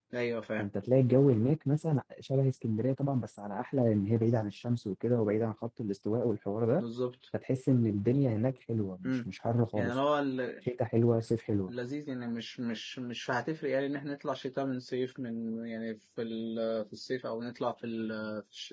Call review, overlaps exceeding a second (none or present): none